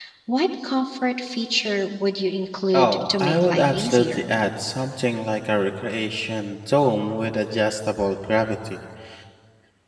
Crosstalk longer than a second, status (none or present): present